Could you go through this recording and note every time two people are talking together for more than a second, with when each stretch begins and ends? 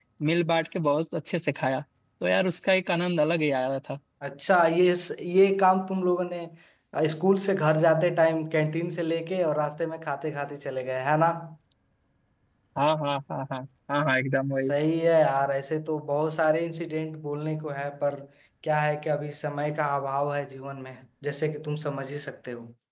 none

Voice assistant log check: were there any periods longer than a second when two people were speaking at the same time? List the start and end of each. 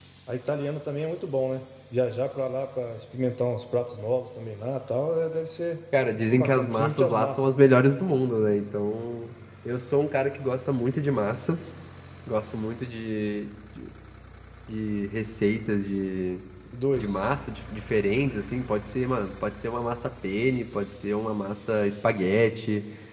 6.3-7.7

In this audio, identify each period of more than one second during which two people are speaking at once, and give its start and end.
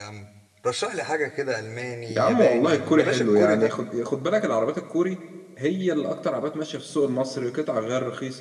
2.2-3.7

